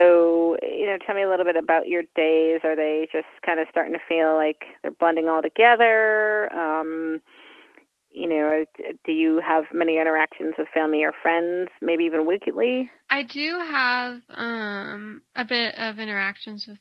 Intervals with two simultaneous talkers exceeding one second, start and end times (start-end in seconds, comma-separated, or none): none